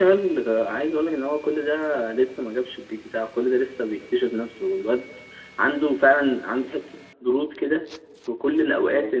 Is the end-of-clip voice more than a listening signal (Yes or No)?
No